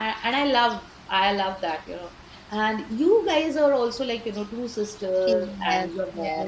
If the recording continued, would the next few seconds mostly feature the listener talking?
Yes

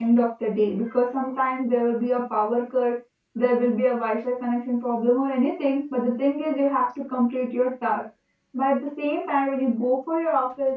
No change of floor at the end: Yes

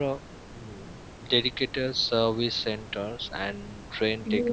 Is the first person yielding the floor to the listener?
Yes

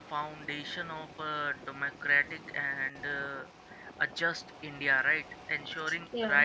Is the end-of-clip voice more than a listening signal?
No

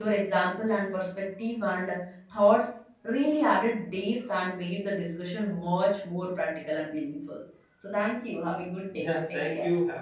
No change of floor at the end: No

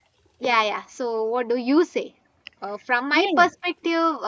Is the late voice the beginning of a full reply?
No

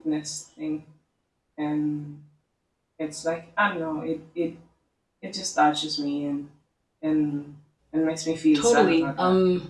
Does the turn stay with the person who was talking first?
No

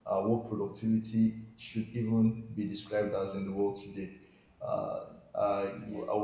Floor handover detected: No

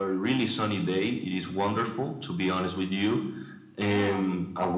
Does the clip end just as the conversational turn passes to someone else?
No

